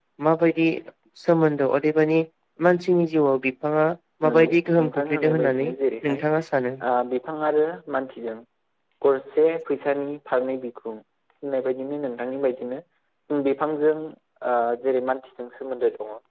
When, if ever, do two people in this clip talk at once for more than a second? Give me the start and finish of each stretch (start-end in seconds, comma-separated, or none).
4.3-5.7